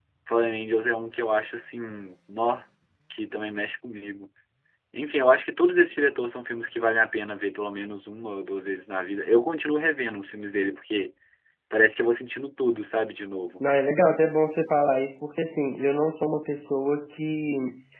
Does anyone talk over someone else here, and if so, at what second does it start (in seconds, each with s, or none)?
none